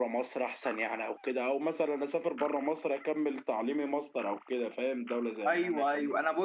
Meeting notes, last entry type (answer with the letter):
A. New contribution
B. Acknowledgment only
A